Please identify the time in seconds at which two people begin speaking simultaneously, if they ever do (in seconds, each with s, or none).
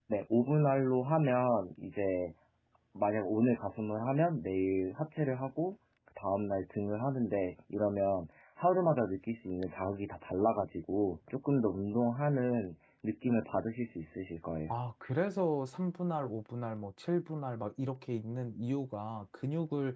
none